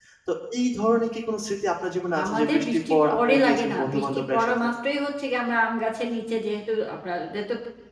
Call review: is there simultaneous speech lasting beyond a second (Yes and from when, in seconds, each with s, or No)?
Yes, from 2.1 s